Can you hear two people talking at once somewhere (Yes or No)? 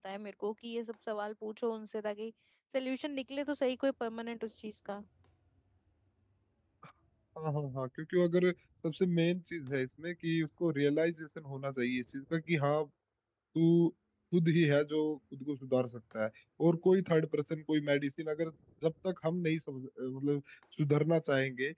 No